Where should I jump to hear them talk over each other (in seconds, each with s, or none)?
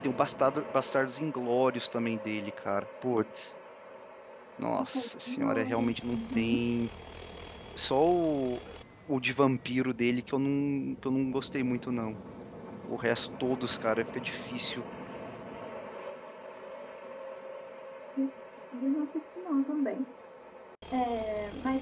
4.9 s